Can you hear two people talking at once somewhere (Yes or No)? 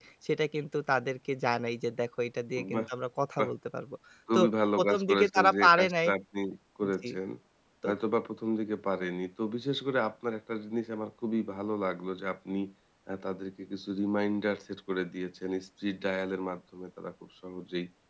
Yes